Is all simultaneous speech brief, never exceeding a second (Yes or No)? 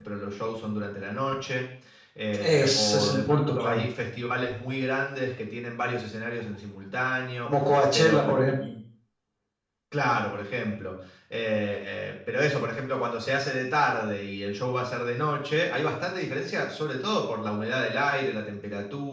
No